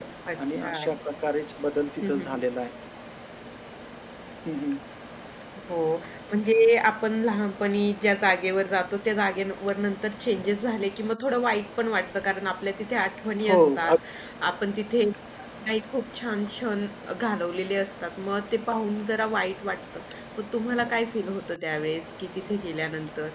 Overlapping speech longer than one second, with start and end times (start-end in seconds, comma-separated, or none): none